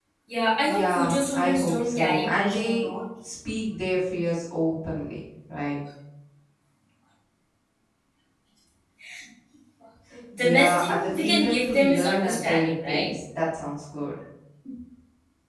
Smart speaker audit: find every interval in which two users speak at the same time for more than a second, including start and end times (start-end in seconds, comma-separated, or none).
0.6-2.9, 10.4-13.1